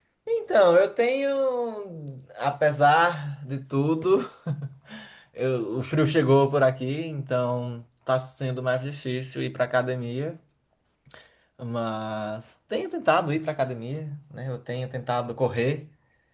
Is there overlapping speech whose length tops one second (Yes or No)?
No